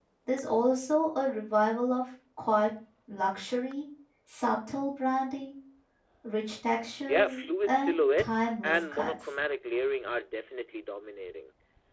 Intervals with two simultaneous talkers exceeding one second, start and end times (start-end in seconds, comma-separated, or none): 7.1-9.3